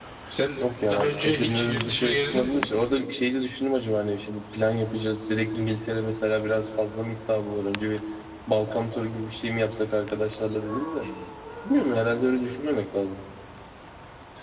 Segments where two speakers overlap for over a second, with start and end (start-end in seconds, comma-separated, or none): 0.9-2.7